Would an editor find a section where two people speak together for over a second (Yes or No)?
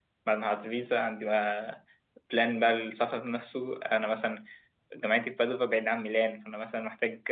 No